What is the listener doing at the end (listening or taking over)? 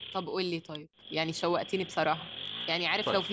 listening